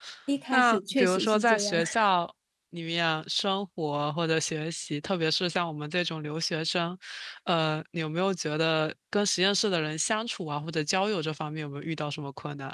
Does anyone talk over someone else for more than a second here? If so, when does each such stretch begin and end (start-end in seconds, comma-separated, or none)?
0.5-1.8